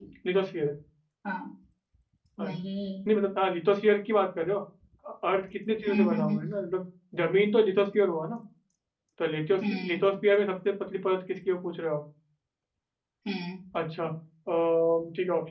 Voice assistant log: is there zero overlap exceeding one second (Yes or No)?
Yes